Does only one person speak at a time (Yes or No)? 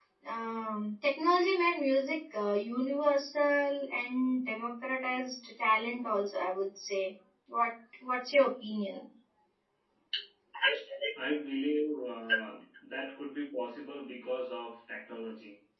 Yes